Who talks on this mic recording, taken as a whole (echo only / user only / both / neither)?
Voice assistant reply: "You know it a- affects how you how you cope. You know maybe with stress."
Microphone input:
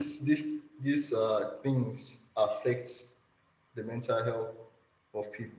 user only